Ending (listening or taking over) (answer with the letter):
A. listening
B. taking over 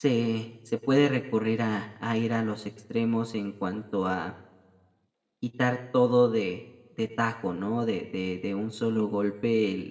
A